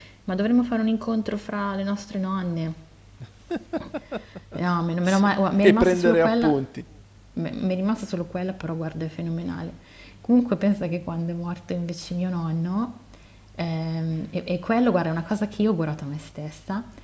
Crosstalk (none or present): present